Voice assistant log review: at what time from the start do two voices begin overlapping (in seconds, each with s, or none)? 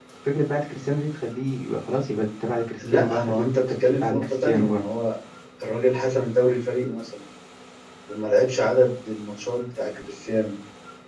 2.8 s